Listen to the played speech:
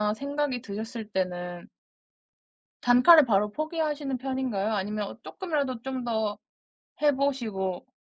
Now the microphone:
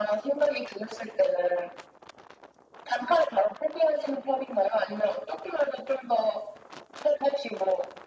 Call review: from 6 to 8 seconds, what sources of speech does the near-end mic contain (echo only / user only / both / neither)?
echo only